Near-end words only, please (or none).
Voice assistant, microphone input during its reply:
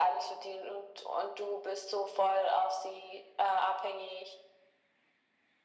none